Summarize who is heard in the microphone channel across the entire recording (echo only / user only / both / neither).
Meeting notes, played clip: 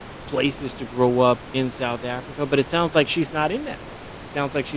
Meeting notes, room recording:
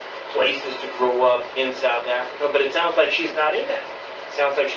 echo only